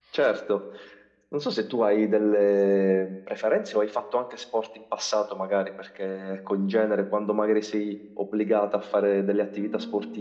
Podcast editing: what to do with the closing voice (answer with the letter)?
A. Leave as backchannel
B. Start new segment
A